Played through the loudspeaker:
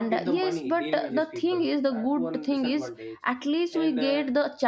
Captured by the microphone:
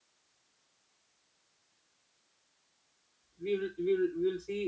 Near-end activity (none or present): present